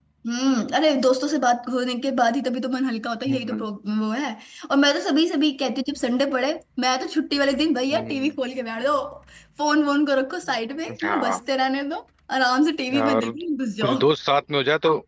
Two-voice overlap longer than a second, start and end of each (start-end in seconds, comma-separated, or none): none